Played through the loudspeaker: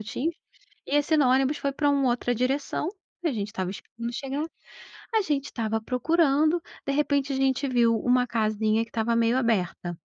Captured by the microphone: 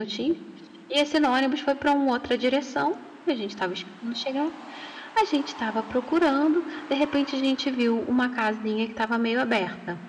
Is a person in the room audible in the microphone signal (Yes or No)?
No